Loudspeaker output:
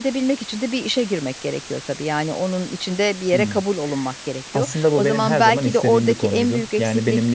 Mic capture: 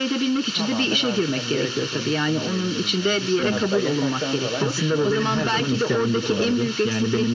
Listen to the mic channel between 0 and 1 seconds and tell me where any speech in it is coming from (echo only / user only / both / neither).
both